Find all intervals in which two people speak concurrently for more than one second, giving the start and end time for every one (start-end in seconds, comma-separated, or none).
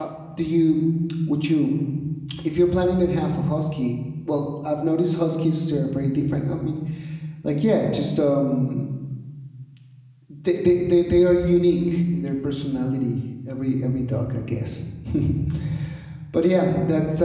none